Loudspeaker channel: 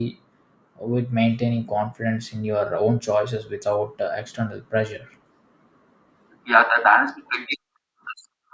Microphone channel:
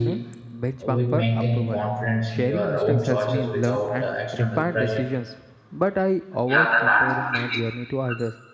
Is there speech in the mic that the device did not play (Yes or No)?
Yes